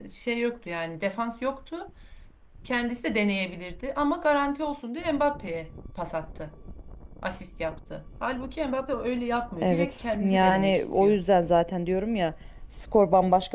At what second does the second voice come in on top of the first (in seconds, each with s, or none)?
9.6 s